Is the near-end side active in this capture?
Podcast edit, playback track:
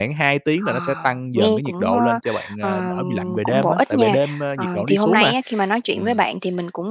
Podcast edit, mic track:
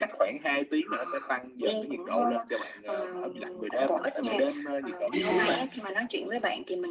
Yes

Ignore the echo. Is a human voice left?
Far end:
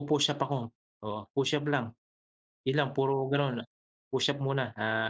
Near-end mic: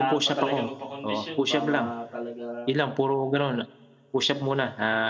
Yes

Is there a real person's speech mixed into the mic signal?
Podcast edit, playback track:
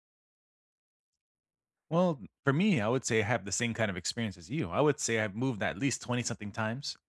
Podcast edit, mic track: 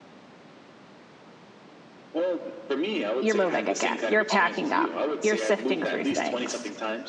Yes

